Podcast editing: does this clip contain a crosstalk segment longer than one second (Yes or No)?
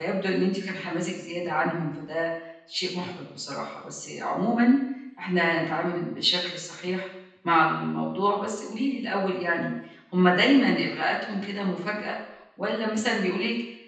No